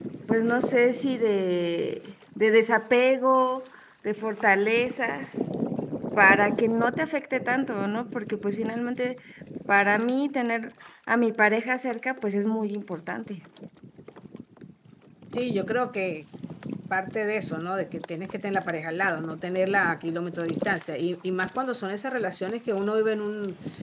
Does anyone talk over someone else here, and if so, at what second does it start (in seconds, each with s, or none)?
none